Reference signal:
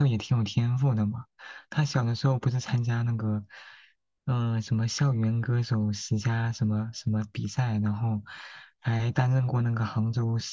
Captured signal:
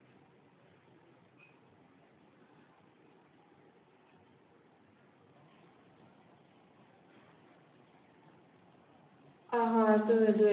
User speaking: Yes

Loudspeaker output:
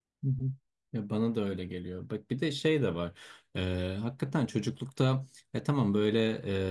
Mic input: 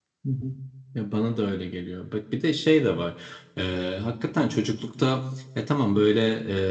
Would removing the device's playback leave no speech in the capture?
Yes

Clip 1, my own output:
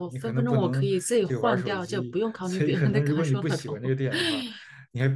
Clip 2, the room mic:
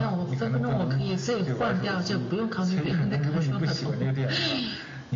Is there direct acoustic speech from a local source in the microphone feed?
No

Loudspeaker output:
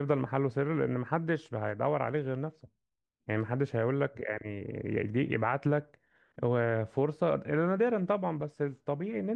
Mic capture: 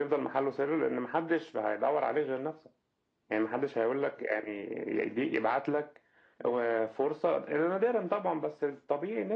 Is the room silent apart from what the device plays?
Yes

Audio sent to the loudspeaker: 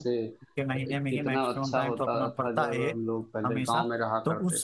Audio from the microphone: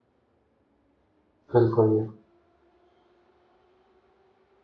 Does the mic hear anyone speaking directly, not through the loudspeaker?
Yes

